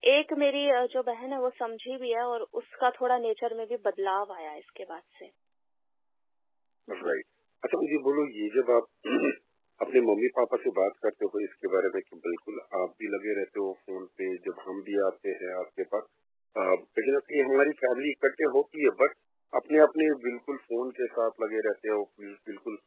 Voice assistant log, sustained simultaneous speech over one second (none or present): none